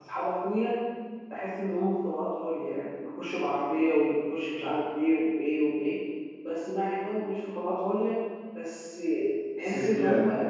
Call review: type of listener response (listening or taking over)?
listening